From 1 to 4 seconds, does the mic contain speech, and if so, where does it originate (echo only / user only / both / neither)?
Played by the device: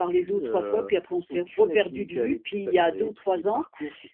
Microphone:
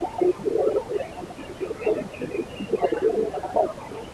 echo only